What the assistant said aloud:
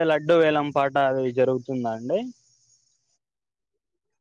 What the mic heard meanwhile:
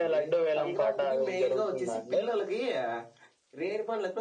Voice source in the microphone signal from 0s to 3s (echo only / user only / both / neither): both